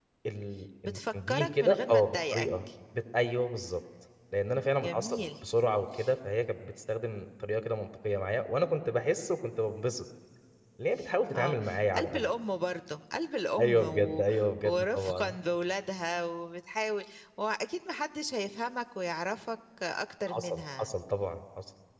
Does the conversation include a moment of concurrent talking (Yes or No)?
Yes